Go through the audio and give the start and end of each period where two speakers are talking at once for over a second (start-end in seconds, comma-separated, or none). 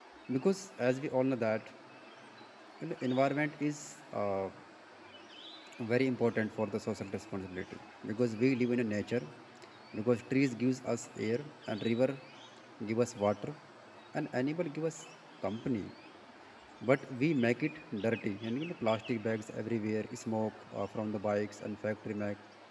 none